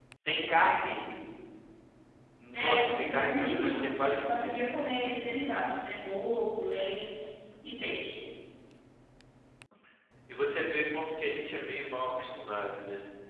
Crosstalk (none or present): present